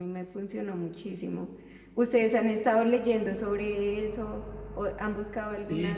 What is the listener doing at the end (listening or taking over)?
taking over